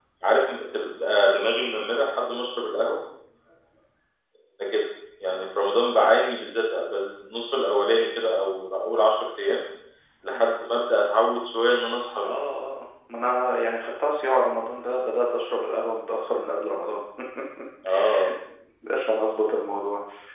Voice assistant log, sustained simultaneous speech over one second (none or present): none